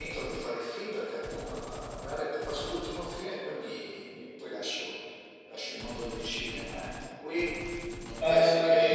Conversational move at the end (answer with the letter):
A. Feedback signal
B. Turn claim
B